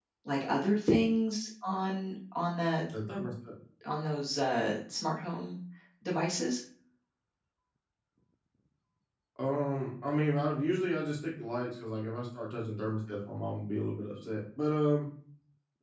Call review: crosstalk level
none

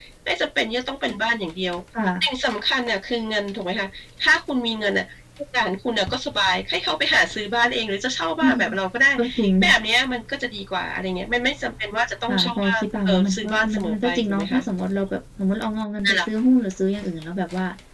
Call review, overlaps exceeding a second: present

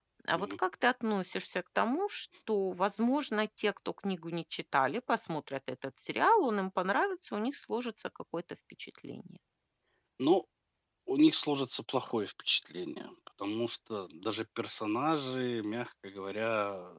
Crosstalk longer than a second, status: none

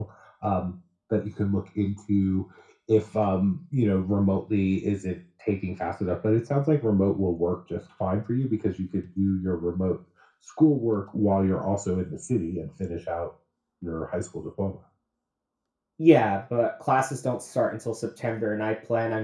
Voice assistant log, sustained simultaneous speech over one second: none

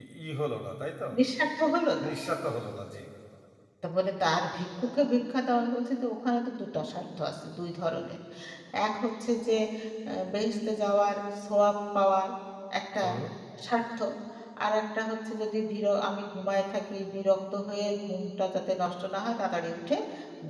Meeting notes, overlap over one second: none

